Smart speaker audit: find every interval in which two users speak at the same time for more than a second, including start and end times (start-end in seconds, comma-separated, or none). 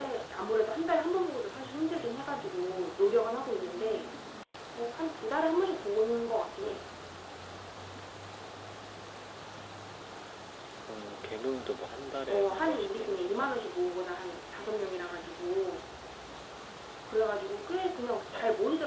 12.3-13.5